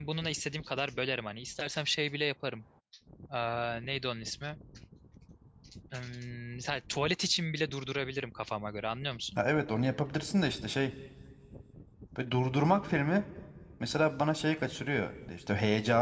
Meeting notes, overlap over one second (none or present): none